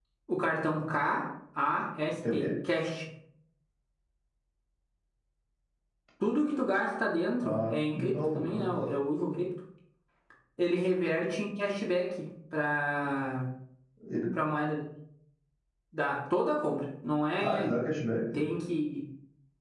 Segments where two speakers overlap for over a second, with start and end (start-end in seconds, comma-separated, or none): 7.4-8.7